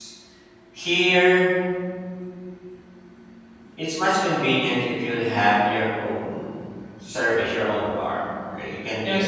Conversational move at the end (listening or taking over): taking over